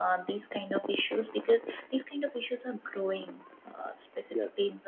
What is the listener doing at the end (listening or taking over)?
listening